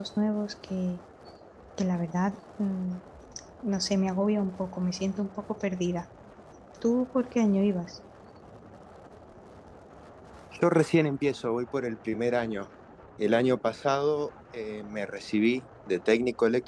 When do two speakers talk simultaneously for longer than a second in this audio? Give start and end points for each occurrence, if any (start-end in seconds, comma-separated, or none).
none